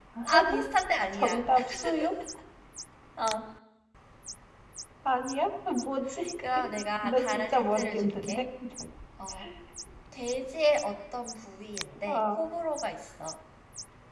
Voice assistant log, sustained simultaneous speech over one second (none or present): present